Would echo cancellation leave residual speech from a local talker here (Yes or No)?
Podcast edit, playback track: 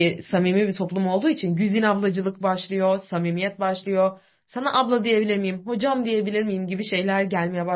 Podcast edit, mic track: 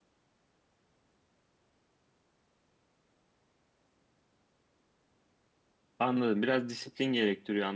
Yes